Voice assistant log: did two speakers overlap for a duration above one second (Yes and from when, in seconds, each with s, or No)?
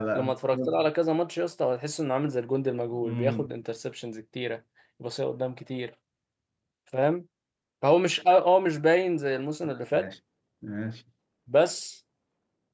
No